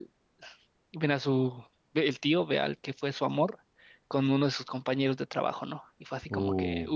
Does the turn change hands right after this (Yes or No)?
Yes